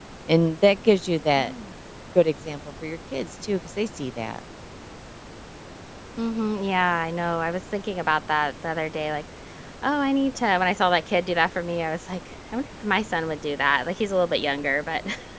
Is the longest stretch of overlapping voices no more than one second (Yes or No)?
Yes